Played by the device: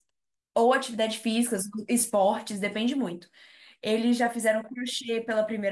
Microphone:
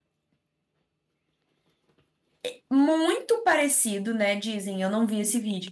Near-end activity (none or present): present